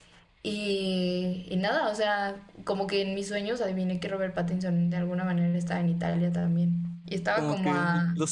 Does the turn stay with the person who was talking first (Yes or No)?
No